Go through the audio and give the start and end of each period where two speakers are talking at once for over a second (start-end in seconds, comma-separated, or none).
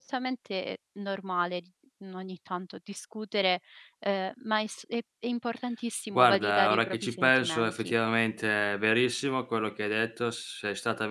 6.2-7.9